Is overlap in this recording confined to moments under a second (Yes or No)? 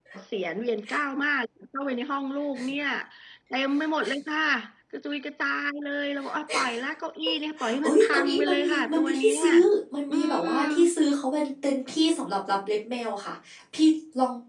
No